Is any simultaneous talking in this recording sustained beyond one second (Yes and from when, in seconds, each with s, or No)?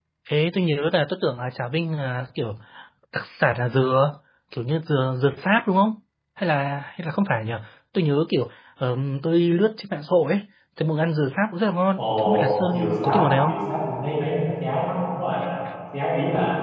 Yes, from 12.0 s